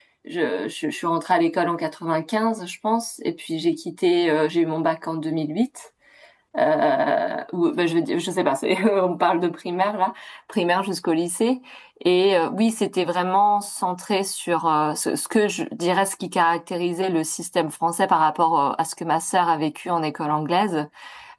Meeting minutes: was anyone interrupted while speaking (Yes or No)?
No